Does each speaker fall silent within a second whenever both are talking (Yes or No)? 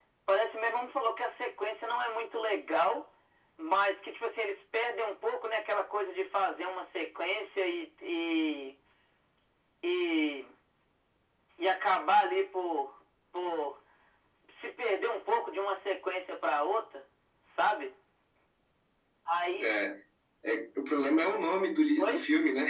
Yes